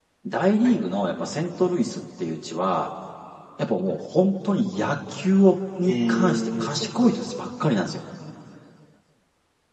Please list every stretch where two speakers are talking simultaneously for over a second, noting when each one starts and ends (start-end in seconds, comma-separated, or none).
5.8-7.1